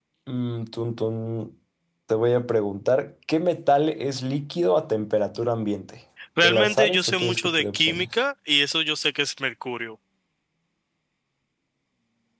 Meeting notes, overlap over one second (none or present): present